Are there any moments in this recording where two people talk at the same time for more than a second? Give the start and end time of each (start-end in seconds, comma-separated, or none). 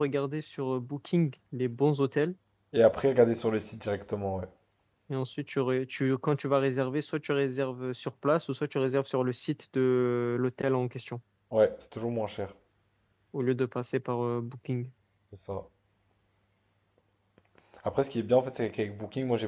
none